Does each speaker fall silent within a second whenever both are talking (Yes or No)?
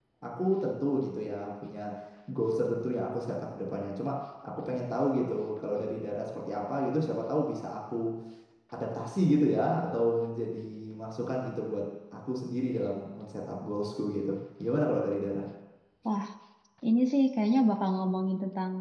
Yes